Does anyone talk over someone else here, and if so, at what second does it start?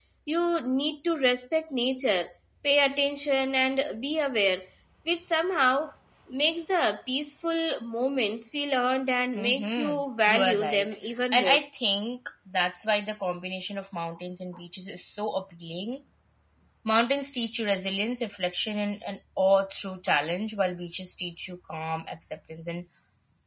9.3 s

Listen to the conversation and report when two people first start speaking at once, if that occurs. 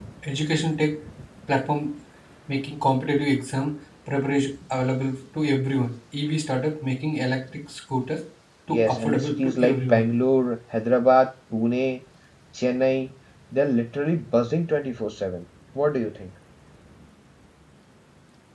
8.7 s

